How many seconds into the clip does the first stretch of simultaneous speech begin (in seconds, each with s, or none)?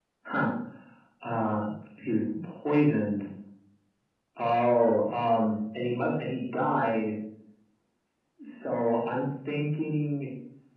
none